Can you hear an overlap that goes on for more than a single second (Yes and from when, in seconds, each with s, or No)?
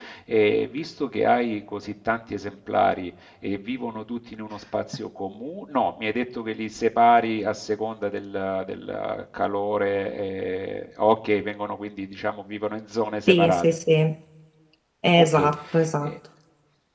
No